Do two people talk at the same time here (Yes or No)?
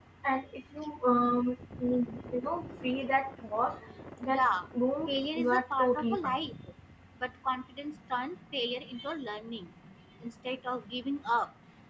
Yes